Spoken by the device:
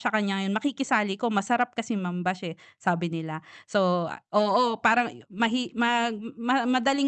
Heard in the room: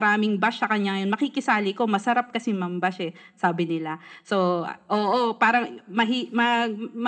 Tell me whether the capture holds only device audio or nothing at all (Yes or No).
Yes